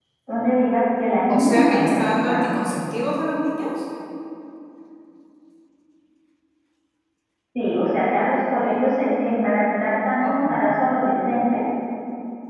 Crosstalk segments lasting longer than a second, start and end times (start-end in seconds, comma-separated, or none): 1.3-2.5